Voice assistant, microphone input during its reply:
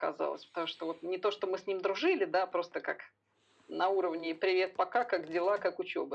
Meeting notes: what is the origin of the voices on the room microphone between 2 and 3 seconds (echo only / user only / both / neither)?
echo only